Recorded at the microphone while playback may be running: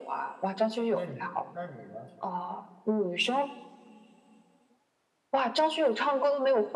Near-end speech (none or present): present